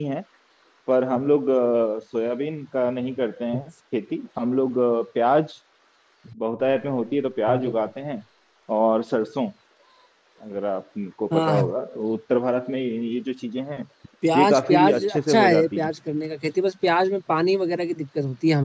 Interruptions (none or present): present